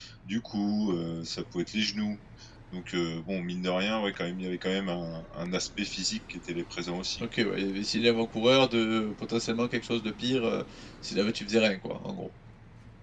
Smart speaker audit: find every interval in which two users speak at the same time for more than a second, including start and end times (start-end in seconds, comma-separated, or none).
none